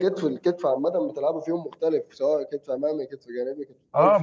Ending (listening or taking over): taking over